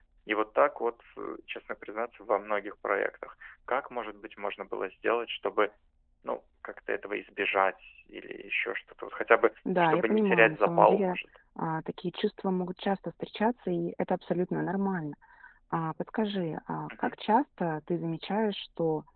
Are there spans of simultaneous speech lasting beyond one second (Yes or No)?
Yes